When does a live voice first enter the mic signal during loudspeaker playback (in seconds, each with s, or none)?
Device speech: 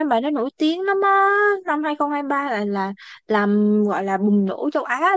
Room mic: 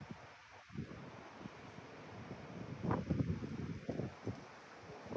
none